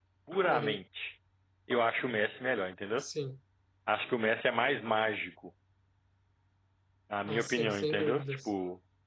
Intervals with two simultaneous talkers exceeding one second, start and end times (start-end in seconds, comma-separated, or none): 7.3-8.5